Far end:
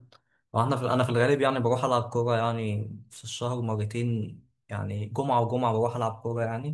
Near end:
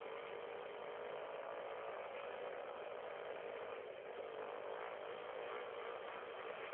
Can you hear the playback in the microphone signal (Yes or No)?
No